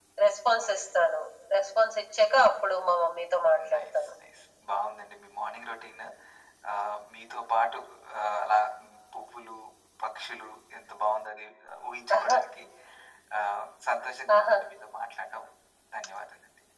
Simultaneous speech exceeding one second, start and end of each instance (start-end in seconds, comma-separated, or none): none